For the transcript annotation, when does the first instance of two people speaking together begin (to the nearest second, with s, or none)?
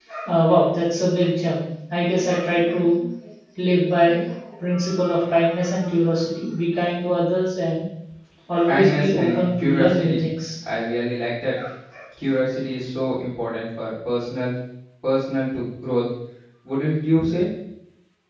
9 s